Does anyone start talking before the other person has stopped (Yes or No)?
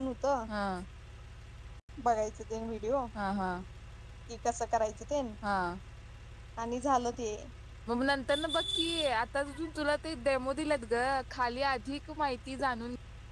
No